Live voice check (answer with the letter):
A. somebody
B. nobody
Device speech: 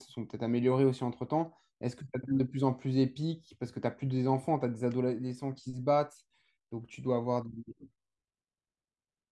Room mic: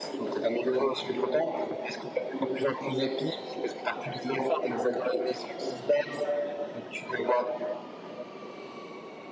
B